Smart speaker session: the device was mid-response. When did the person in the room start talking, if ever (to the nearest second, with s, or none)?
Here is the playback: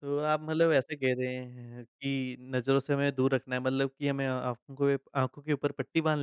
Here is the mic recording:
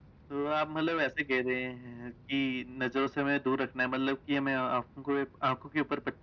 none